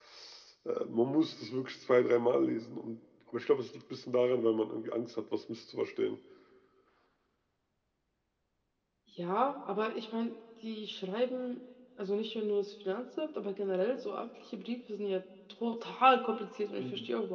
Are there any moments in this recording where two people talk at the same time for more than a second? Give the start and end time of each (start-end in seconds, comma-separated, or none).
none